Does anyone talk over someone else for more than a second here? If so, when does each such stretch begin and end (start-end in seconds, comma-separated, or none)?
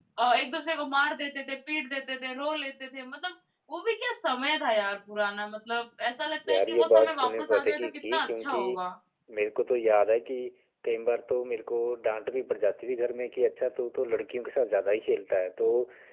6.5-8.6